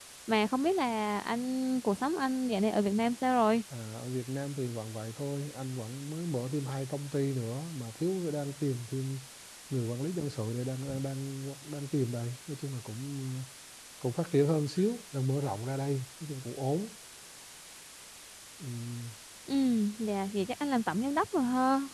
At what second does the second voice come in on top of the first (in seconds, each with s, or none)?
none